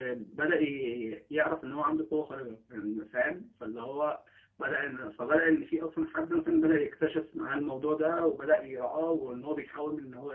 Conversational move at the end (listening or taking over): listening